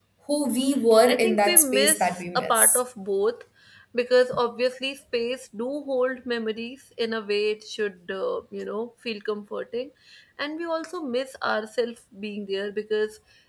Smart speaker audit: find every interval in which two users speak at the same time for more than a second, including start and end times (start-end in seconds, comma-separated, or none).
1.1-2.8